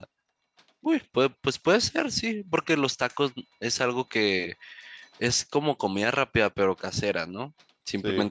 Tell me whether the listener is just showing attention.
Yes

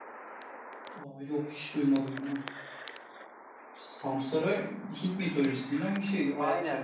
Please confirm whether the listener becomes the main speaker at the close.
Yes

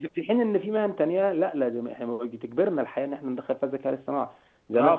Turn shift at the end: Yes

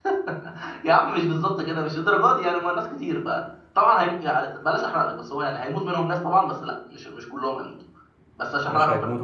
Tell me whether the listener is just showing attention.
No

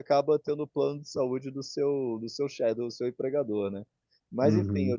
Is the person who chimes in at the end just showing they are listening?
No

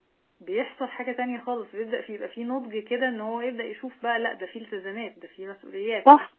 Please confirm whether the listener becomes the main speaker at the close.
Yes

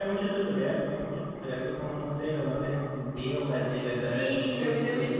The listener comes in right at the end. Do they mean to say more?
Yes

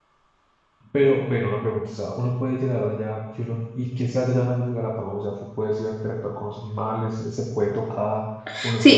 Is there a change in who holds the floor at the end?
Yes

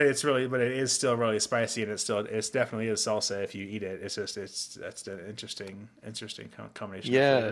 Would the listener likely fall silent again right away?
No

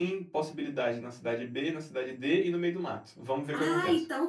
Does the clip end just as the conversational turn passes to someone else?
Yes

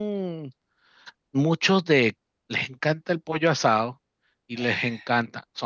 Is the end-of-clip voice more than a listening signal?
No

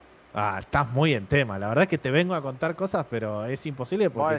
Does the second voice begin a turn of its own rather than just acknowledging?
Yes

